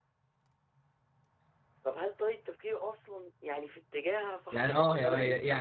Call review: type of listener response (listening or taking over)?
taking over